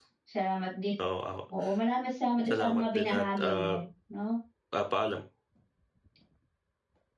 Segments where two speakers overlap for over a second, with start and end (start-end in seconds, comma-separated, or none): 2.5-3.7